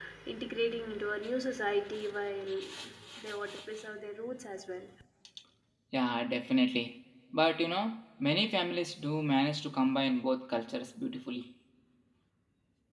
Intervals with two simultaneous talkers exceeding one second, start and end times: none

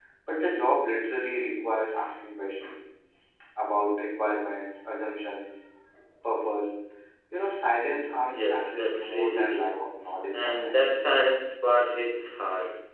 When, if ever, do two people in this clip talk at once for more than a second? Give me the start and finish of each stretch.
8.2-9.8

